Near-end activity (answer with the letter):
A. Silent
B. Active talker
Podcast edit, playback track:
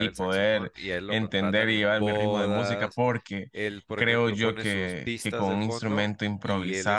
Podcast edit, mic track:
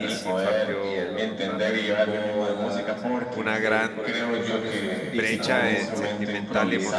B